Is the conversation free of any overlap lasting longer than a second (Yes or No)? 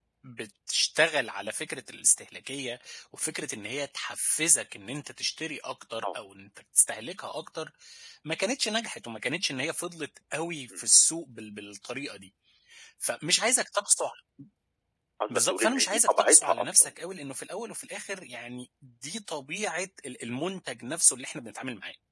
No